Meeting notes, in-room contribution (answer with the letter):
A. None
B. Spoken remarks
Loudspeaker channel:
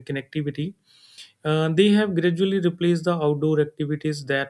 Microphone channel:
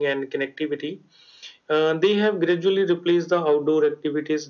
A